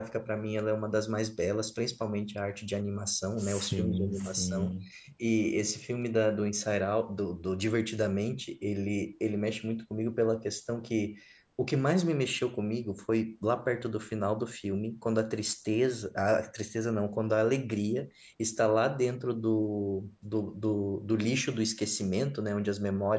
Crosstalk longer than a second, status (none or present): present